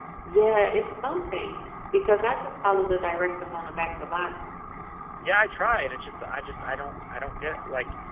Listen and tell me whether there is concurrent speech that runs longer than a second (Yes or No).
No